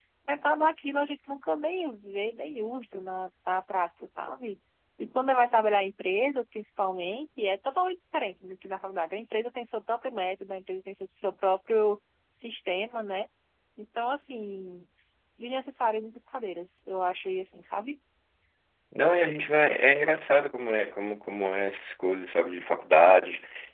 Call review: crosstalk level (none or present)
none